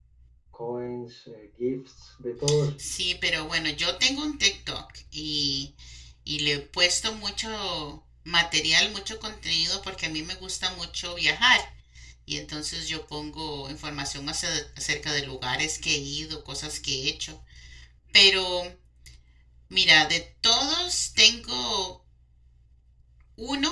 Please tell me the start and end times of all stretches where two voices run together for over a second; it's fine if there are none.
none

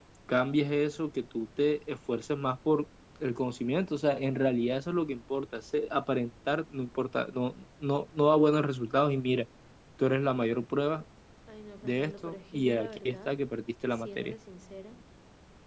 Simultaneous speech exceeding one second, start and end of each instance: 11.8-13.3

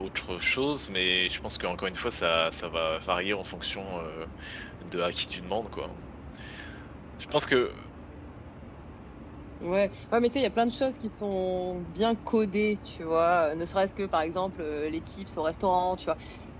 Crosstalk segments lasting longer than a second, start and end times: none

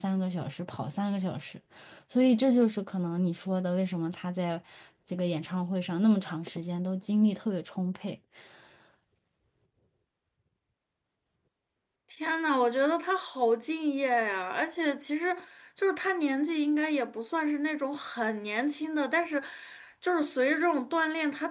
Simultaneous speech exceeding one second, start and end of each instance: none

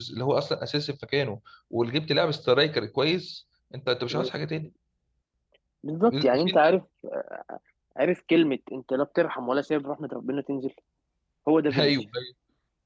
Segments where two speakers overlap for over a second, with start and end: none

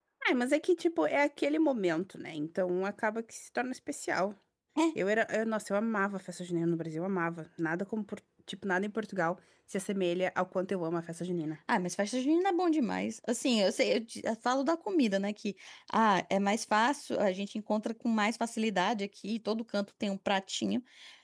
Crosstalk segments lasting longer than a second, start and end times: none

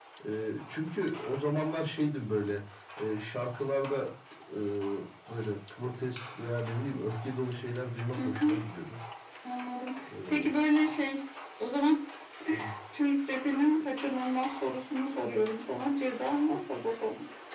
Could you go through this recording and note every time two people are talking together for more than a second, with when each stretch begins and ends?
none

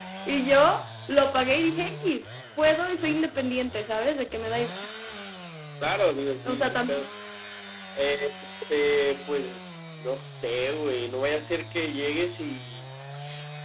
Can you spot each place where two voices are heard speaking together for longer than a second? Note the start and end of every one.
none

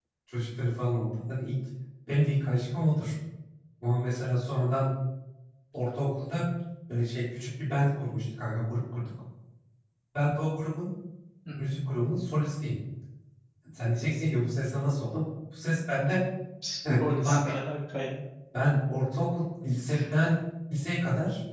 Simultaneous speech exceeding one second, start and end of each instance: none

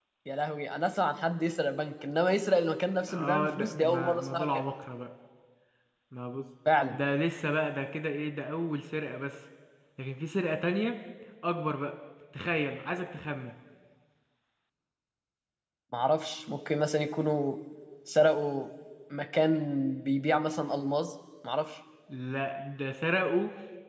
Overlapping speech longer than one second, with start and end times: 3.1-4.6

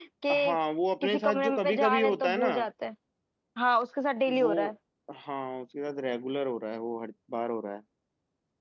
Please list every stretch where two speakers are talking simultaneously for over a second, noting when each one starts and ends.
1.0-2.5

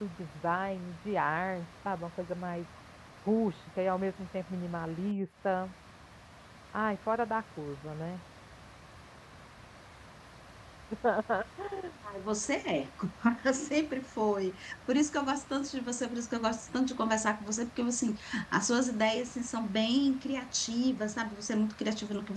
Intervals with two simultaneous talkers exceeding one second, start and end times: none

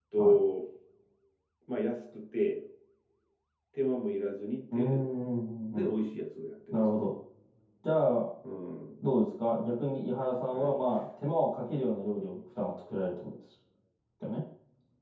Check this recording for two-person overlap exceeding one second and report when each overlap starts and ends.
none

